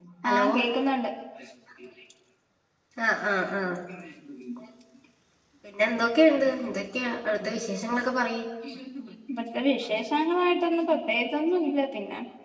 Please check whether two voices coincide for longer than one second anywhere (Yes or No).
No